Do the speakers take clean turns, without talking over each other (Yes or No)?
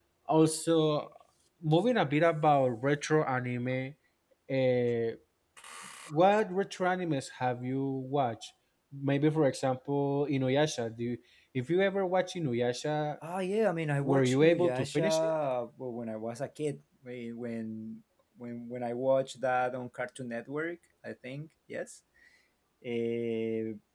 No